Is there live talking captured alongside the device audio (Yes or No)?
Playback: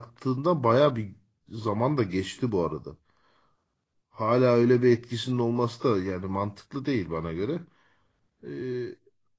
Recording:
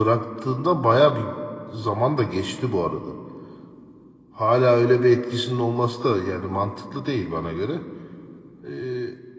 No